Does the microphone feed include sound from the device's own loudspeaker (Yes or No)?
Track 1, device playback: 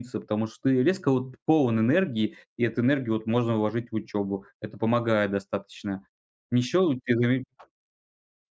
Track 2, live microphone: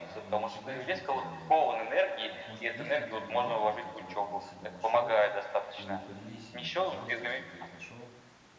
Yes